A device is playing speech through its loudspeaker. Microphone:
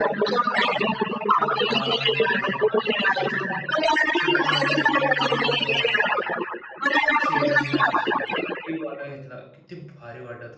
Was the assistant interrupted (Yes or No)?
Yes